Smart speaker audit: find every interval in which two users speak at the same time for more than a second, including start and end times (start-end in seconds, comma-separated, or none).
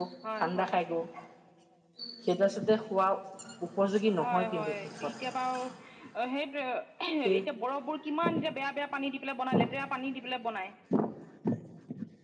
4.2-5.5